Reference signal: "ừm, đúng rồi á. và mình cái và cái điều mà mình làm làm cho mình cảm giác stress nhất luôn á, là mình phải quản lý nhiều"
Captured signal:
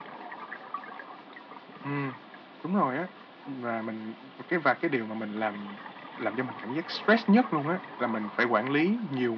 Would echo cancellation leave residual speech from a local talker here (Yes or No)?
No